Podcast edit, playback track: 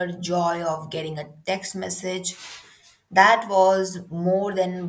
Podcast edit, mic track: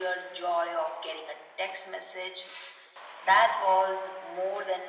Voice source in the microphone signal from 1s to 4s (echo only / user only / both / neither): echo only